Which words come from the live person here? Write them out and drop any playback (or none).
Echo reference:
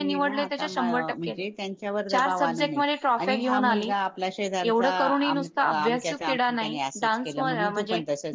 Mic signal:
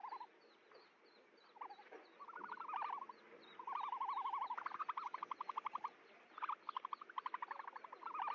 none